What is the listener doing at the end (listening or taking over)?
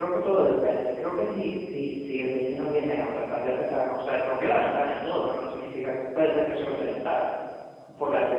taking over